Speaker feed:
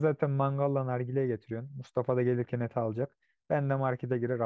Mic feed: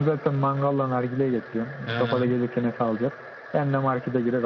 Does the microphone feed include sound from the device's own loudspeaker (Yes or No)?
Yes